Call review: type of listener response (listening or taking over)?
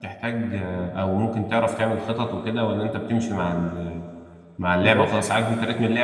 listening